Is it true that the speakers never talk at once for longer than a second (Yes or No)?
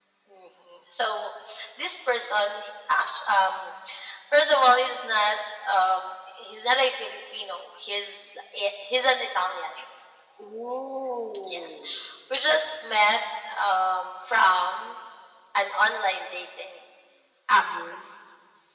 Yes